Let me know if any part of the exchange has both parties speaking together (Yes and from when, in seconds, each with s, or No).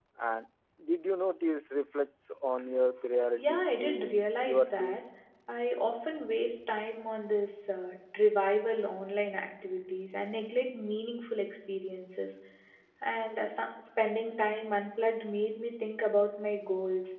Yes, from 3.4 s